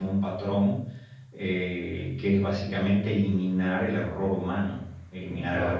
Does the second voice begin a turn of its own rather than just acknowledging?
No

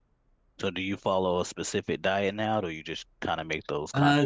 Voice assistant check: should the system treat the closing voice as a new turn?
Yes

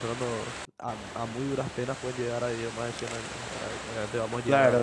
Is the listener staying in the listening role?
No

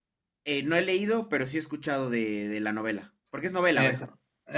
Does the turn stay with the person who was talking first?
No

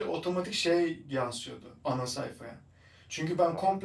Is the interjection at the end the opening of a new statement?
No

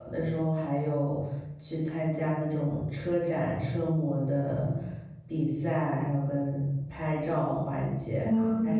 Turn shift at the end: No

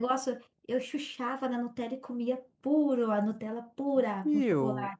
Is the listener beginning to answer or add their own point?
Yes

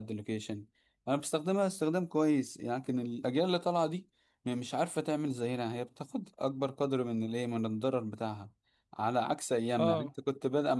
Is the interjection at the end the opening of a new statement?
No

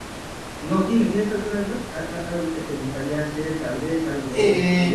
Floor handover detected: Yes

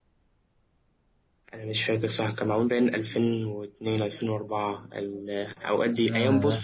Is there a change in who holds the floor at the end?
No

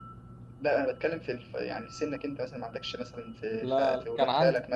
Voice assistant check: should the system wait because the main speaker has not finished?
No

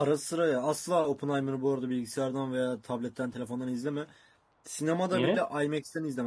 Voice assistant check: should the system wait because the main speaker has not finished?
Yes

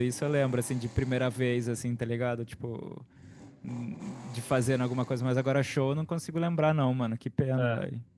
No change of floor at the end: No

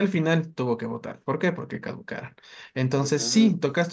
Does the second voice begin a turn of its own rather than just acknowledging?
No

